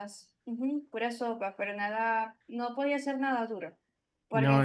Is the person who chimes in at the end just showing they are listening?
Yes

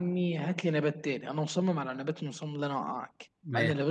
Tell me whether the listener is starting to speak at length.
No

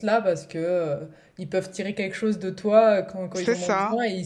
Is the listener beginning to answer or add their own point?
No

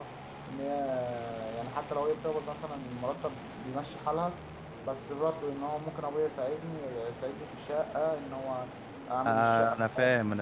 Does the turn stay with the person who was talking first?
No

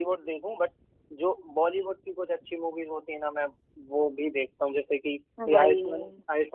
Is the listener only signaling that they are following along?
Yes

